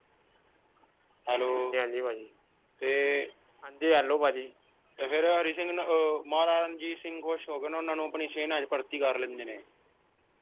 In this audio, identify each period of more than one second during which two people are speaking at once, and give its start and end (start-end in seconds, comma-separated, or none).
none